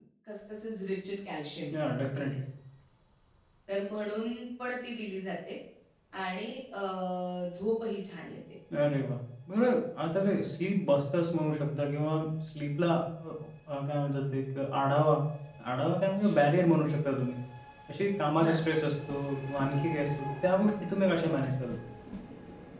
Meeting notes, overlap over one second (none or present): none